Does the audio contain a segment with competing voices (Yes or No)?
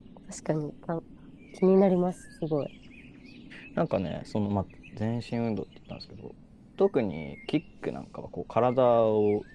No